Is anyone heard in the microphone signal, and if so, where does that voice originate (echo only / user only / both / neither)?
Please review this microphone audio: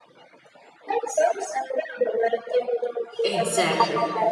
both